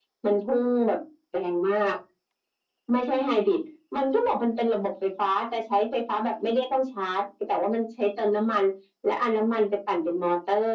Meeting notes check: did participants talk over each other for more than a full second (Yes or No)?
No